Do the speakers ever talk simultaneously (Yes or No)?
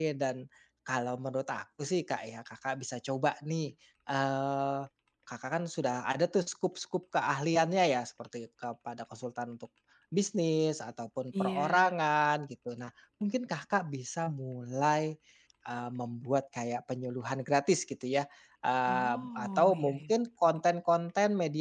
Yes